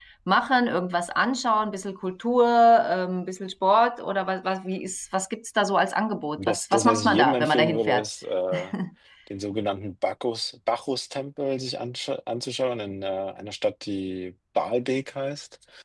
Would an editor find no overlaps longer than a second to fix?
No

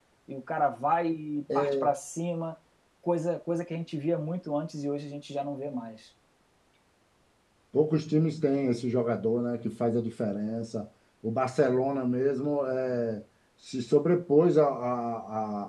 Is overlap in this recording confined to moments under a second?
Yes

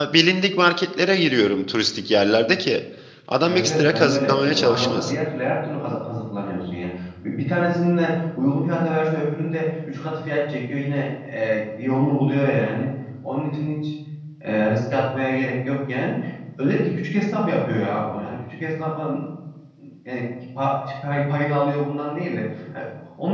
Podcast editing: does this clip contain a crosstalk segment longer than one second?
Yes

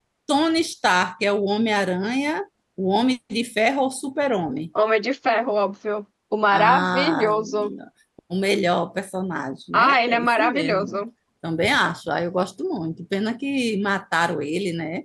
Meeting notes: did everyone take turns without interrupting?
No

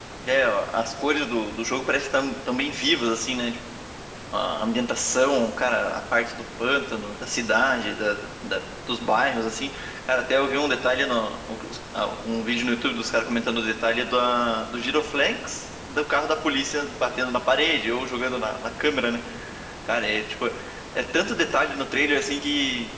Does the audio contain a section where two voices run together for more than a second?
No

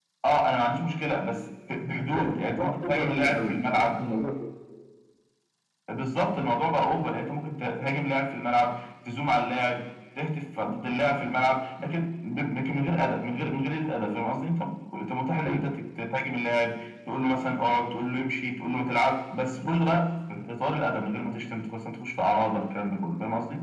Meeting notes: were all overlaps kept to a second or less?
No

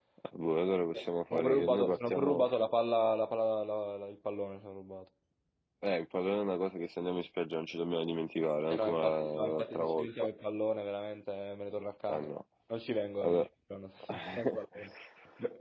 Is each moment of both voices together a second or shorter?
No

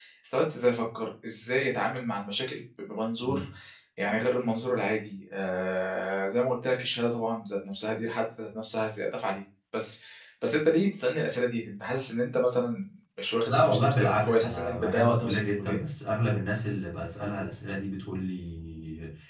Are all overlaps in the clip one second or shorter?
No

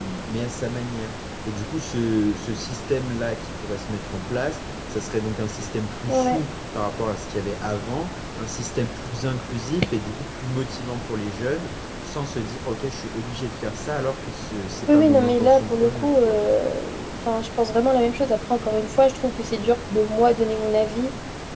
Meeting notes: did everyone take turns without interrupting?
No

